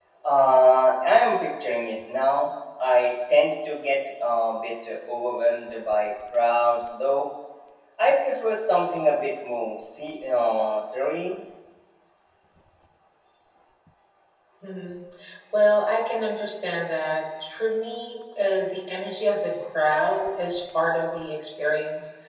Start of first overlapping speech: none

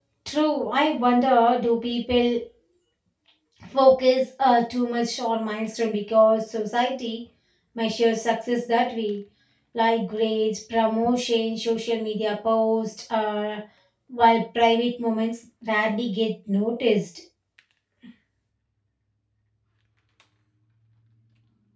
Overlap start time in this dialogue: none

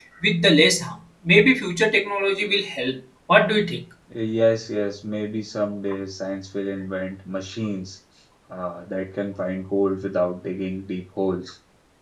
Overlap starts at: none

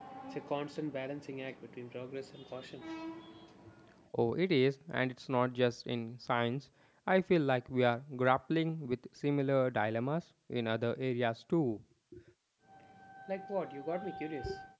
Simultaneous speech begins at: none

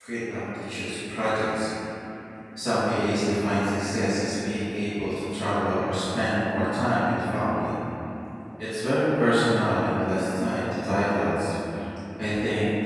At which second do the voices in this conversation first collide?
none

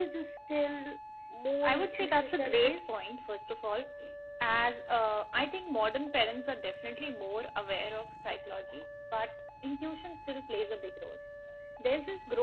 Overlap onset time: 2 s

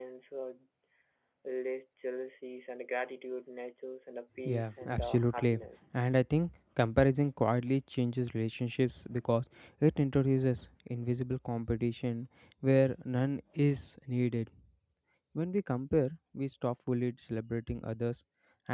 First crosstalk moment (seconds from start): 4 s

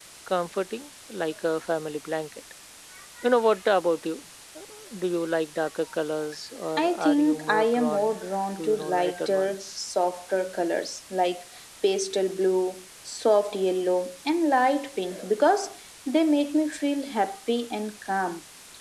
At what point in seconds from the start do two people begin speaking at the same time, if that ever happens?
7 s

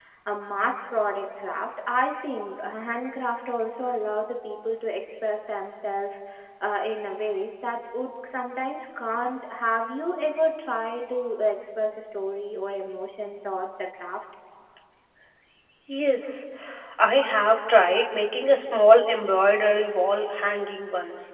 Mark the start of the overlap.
none

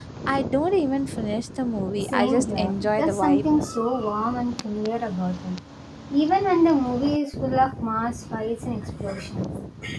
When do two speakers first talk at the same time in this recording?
2 s

